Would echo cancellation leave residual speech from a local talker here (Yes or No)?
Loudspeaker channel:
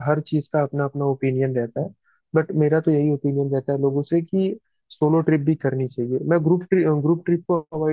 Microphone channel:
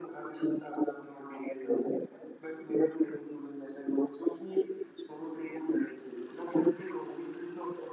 No